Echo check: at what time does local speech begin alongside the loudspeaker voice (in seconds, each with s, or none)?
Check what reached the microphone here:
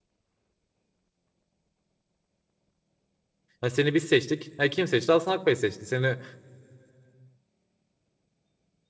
3.6 s